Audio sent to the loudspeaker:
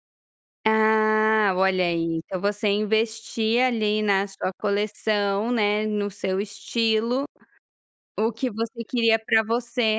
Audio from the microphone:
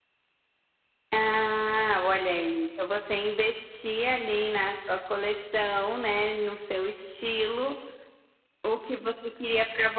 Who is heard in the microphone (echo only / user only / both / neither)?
echo only